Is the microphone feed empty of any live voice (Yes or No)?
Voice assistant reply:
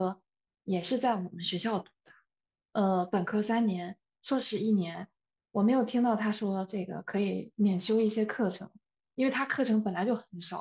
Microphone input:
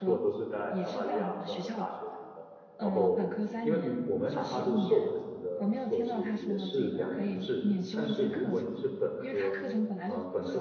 No